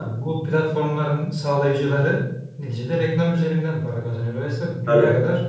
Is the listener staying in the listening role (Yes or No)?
Yes